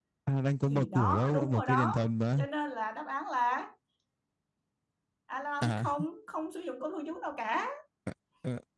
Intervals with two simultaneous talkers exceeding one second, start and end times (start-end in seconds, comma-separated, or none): 0.7-2.0